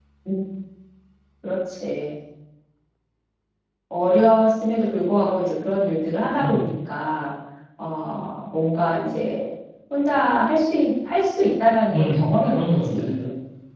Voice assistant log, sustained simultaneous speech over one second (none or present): present